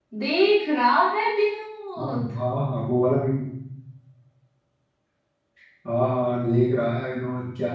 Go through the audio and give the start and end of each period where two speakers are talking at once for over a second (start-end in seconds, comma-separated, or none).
none